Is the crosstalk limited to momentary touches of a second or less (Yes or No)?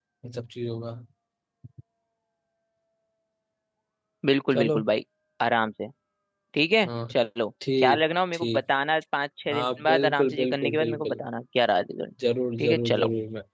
No